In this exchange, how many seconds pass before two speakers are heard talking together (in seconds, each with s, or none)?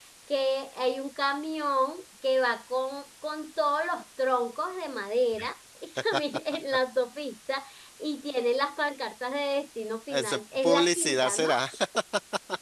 10.1 s